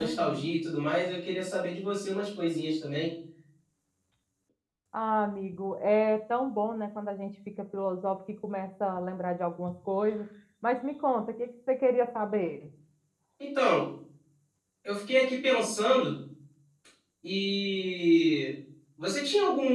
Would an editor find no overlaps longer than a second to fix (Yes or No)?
Yes